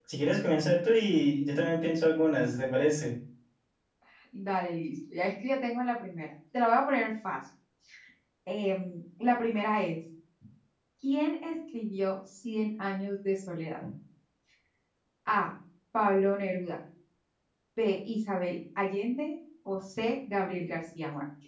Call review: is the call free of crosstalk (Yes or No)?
Yes